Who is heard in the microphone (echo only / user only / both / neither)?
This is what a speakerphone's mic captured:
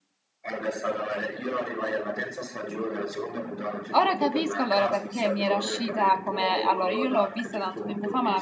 both